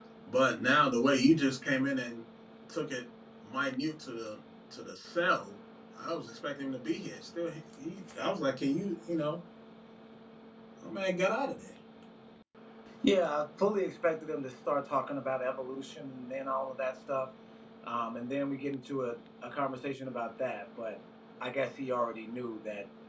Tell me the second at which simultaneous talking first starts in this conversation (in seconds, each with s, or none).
none